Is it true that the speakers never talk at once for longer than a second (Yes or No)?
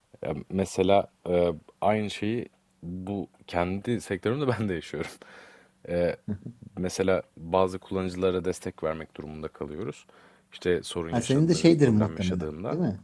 No